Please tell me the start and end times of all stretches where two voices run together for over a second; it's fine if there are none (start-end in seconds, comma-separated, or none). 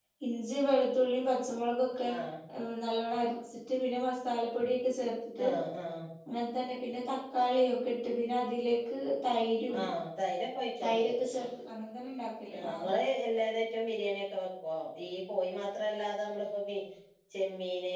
none